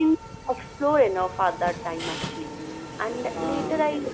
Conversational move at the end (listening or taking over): listening